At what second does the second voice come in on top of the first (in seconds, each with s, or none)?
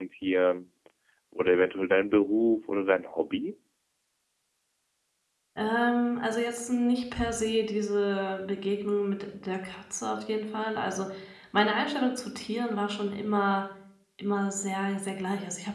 none